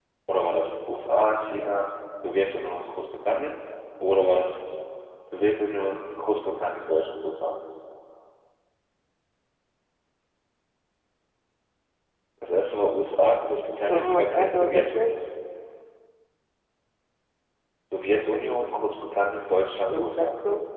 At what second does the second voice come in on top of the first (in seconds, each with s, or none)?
13.9 s